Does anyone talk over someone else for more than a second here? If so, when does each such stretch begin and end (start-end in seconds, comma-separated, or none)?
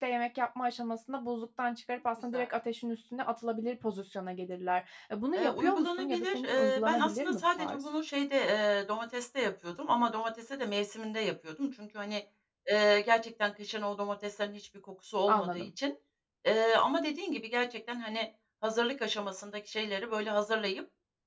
5.3-7.8